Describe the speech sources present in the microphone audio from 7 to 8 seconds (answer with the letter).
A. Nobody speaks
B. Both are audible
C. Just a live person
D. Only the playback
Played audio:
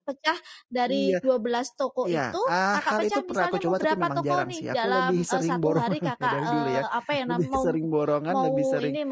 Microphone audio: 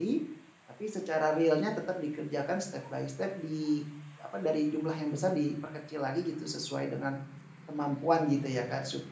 C